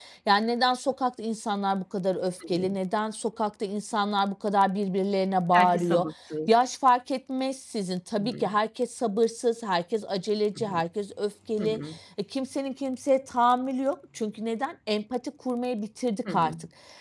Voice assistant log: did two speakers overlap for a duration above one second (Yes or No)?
No